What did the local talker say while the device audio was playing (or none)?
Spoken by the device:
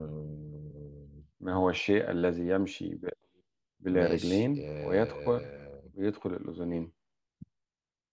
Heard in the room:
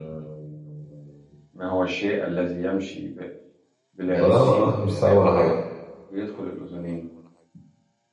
لا والله مش صعب ولا حاجة